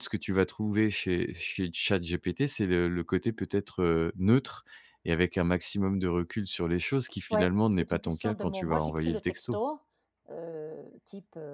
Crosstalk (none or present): present